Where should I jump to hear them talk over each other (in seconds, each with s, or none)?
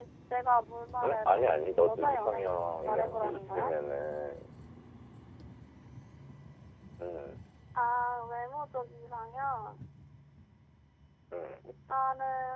1.0 s